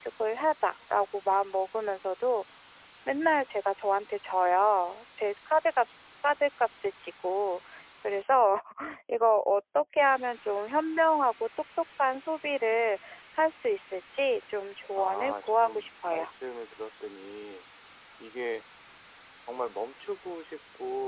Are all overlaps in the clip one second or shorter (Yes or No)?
No